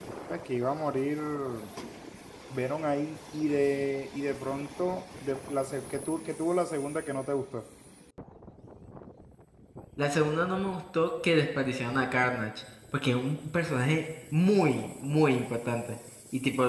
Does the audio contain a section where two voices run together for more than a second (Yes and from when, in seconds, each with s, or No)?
No